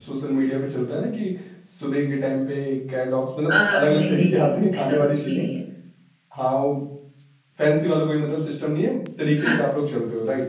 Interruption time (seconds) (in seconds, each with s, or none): 3.5 s